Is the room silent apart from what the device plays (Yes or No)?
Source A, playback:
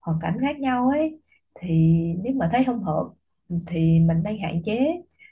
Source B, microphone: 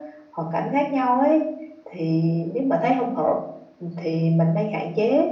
Yes